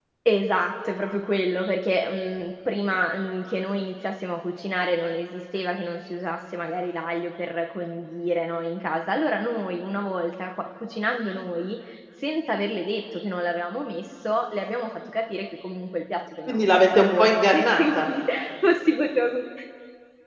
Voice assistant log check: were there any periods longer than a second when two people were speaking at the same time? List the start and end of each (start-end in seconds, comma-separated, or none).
16.5-18.1